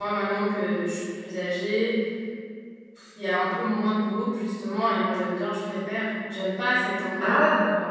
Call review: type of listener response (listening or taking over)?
listening